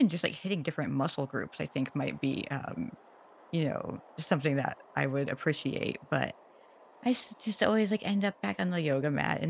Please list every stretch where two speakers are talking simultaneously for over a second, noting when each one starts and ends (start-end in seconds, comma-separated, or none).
none